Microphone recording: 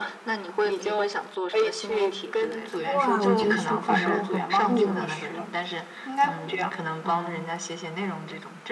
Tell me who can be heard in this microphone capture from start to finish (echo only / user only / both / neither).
both